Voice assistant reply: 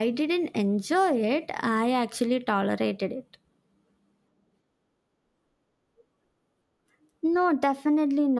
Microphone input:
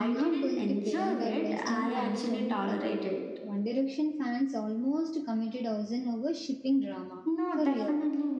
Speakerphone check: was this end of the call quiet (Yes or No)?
No